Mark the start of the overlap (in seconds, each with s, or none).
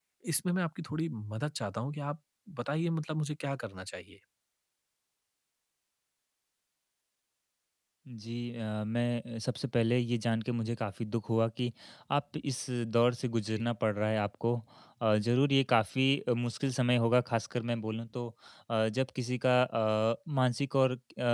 none